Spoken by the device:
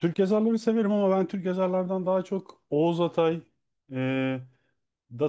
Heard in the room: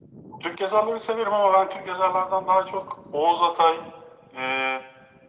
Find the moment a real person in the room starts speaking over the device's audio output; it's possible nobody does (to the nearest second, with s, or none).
none